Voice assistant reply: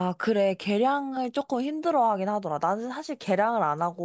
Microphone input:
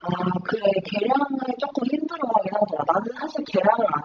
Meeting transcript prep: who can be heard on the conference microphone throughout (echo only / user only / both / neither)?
echo only